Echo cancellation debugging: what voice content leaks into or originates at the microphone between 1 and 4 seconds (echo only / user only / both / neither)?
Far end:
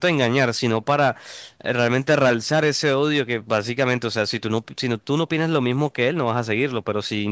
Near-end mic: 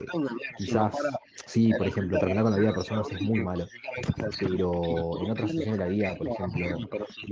both